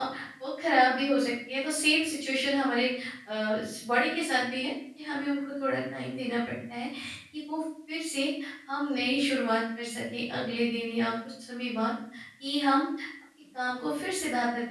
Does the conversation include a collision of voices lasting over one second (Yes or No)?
No